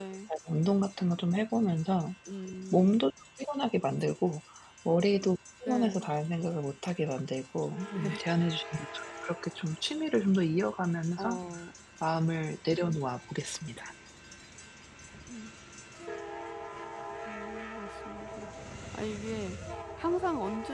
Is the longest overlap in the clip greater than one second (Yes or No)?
No